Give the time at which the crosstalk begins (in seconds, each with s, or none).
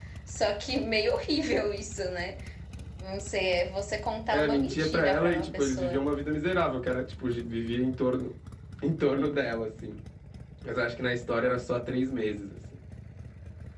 4.3 s